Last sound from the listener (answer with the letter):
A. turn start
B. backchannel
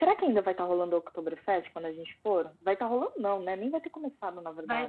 A